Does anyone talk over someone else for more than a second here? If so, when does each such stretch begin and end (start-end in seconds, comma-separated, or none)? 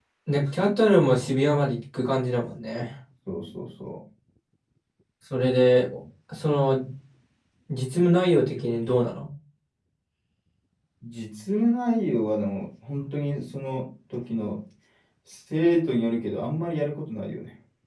none